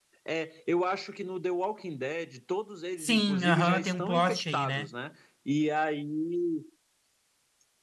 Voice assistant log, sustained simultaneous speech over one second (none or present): present